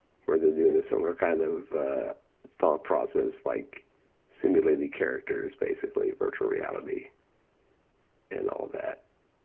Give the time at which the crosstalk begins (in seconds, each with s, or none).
none